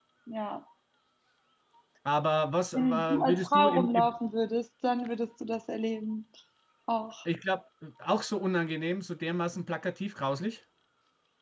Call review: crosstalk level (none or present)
present